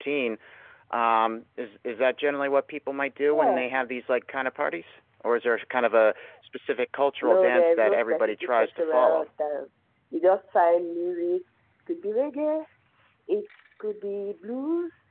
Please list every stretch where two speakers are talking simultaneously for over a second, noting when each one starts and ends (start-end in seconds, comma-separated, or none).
7.2-9.3